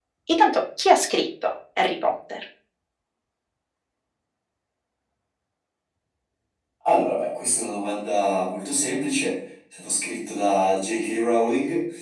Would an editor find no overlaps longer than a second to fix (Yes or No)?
Yes